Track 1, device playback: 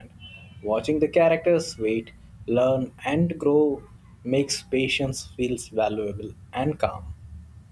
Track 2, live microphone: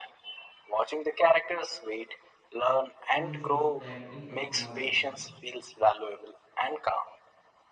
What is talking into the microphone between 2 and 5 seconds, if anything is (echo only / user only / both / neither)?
both